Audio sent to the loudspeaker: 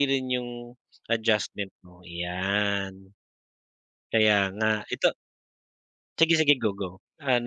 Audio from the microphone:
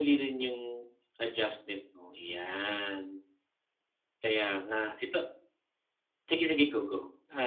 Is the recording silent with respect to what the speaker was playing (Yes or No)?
No